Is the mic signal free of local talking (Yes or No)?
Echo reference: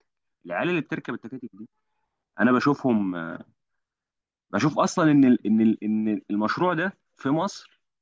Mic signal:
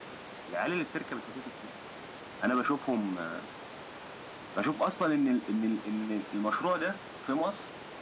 Yes